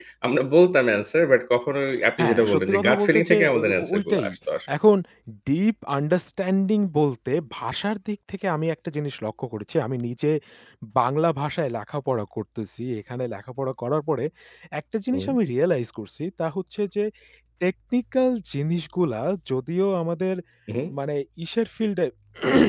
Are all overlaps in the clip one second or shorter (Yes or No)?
No